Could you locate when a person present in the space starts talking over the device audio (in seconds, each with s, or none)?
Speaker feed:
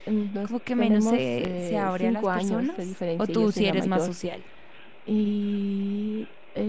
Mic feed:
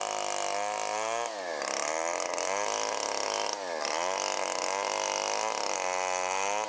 none